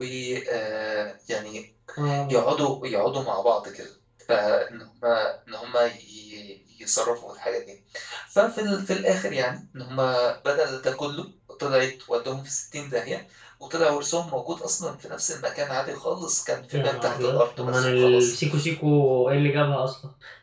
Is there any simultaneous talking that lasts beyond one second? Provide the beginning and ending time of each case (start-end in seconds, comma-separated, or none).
16.7-18.3